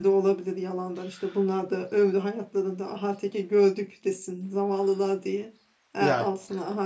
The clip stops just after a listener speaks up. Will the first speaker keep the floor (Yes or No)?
Yes